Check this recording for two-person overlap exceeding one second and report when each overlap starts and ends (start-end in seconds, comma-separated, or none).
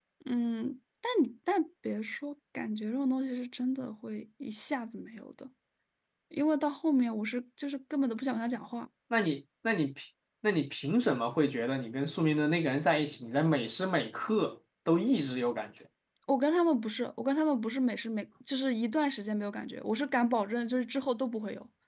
none